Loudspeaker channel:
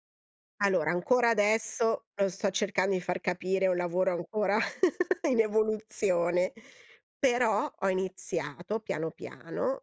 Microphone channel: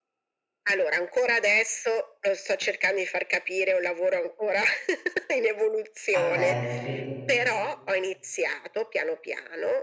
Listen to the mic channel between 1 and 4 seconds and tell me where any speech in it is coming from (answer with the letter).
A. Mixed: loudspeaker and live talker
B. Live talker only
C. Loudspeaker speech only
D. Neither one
C